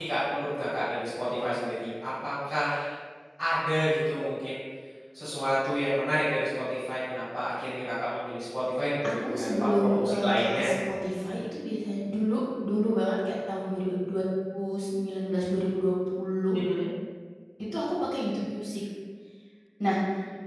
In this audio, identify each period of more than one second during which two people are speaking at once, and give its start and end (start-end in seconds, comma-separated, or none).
9.2-10.7